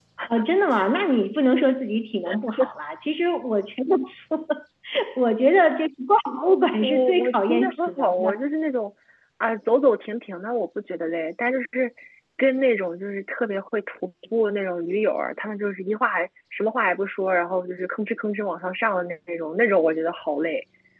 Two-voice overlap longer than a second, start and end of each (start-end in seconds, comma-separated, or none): 6.8-8.4